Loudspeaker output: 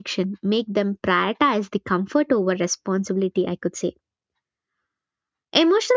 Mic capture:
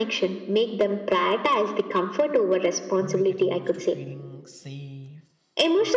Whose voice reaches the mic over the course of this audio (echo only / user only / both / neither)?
both